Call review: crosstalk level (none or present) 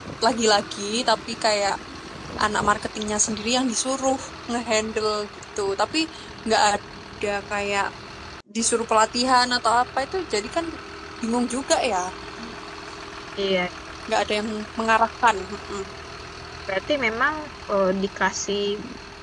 none